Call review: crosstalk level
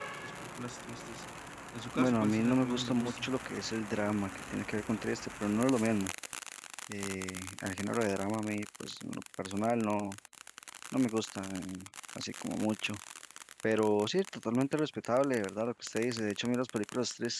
present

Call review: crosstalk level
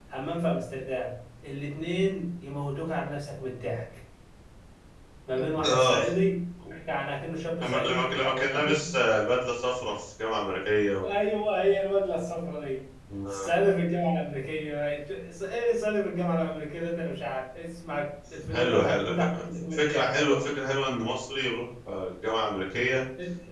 present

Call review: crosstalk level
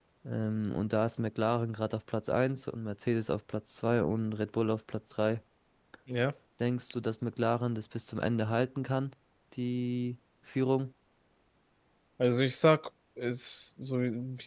none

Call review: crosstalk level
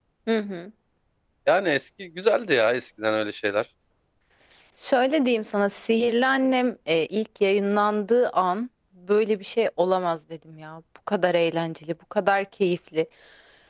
none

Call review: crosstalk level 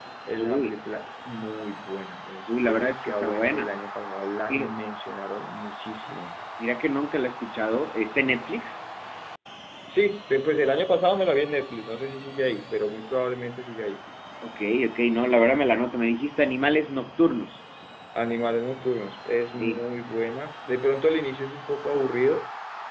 present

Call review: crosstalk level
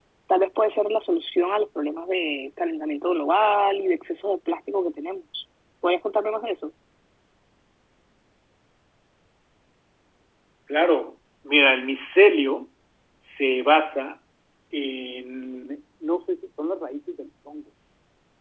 none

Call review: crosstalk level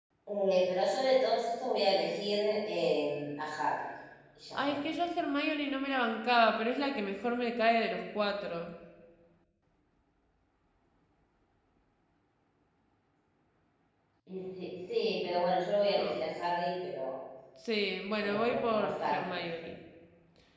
present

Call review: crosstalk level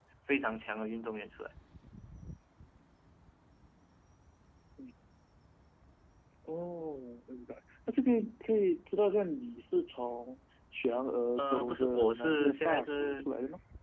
present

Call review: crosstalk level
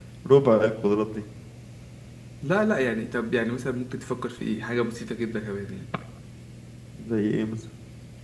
none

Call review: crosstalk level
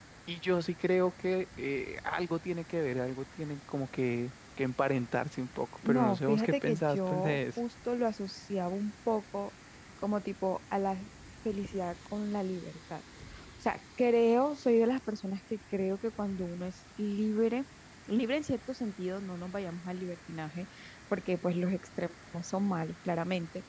present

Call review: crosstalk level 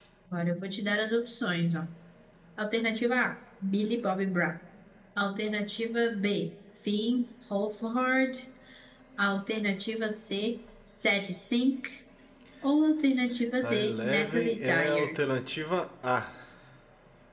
present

